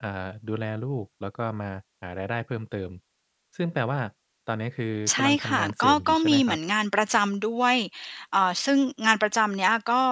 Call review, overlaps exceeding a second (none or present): present